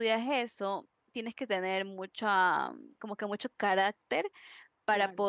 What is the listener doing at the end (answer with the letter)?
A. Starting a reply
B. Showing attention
B